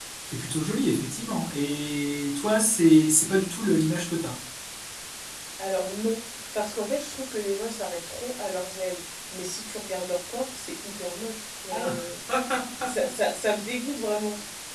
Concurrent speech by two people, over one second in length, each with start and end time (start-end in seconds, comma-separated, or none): none